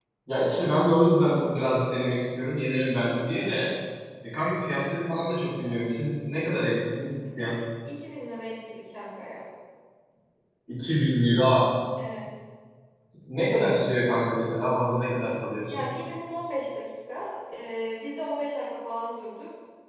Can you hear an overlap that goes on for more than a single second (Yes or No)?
No